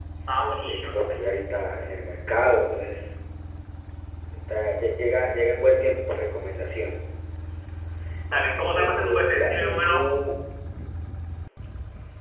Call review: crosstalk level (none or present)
present